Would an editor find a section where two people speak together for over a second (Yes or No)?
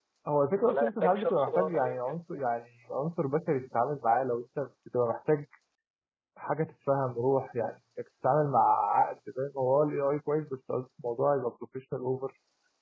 Yes